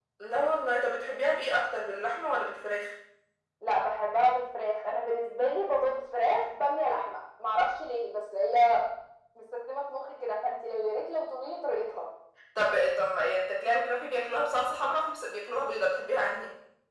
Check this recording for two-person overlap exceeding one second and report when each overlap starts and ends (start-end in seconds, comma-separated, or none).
none